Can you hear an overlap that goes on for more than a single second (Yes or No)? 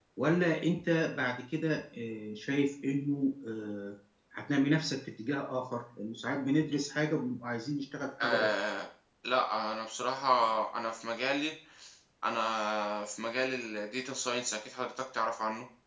No